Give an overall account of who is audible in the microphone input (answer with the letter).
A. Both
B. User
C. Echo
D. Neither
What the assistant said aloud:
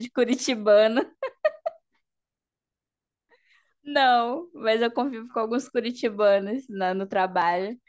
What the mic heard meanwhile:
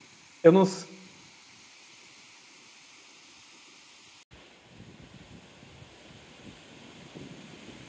B